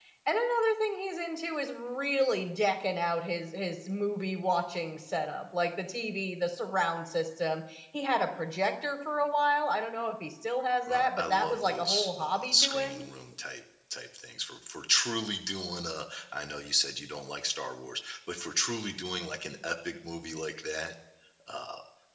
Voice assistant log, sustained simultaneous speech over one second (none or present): present